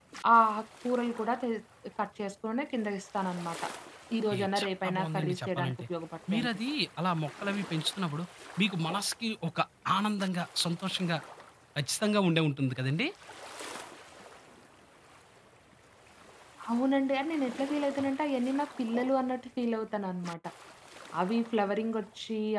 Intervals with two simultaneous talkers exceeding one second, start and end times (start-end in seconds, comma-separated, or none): 4.3-5.8